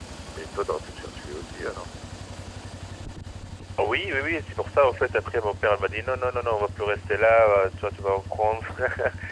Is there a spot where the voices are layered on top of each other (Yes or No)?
No